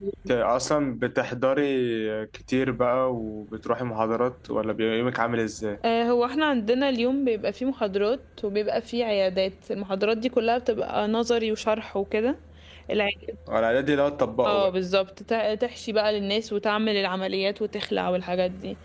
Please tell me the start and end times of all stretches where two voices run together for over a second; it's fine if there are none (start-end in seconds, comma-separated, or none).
none